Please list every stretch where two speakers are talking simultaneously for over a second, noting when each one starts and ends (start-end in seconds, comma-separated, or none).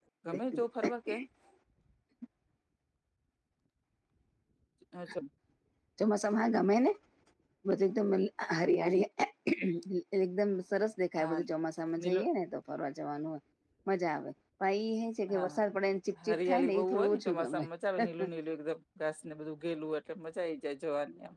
16.2-17.6